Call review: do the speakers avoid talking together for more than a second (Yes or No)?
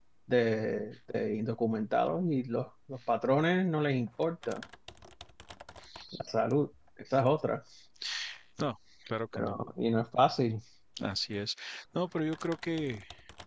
Yes